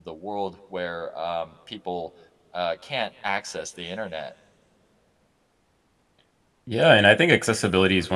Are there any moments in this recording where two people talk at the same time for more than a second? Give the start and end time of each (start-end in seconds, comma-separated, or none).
none